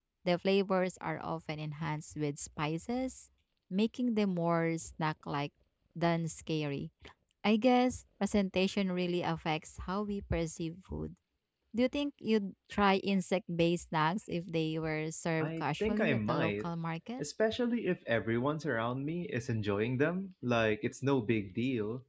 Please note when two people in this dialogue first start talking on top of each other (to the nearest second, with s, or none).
15 s